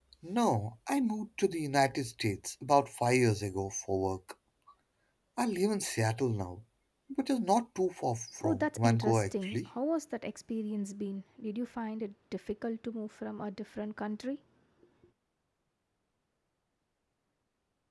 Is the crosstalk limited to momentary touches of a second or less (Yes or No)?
No